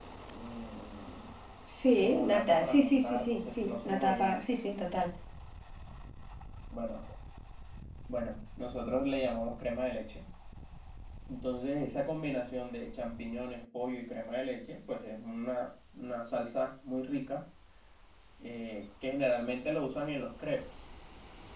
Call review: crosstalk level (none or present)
present